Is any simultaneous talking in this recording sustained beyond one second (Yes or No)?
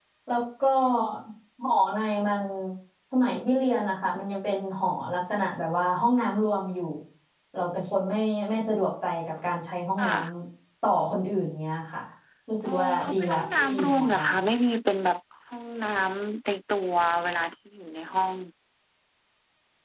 Yes